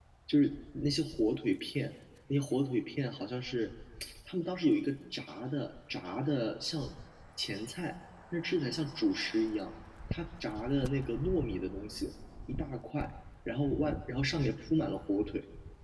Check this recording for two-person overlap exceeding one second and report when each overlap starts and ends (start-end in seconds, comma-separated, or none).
none